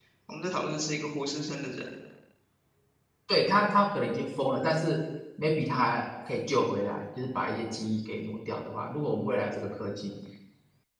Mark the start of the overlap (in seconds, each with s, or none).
none